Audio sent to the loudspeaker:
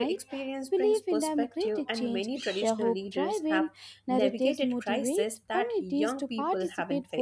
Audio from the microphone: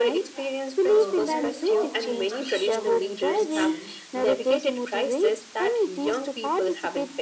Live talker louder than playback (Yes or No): No